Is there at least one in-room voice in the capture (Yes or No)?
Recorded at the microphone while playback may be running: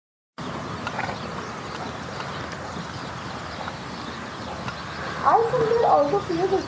Yes